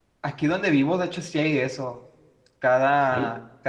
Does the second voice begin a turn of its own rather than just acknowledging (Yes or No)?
No